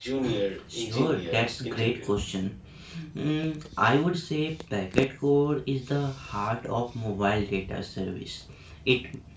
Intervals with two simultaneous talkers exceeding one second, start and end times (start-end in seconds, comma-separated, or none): 0.7-2.1